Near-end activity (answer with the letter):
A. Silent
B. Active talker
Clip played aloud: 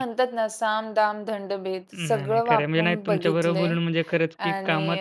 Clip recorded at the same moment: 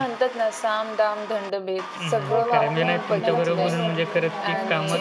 B